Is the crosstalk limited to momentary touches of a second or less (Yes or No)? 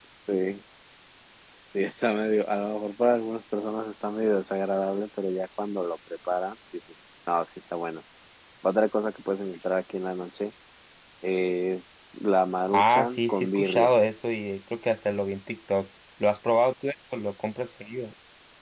No